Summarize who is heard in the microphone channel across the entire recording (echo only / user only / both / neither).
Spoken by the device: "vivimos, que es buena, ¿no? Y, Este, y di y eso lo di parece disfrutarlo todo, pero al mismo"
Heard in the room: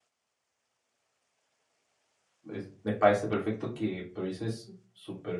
user only